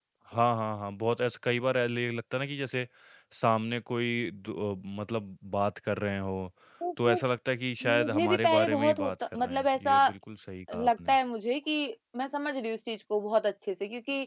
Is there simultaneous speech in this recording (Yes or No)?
Yes